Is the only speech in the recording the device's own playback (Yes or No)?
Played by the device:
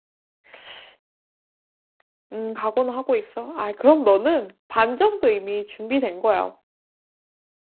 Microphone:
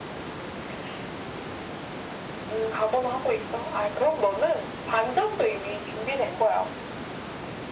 Yes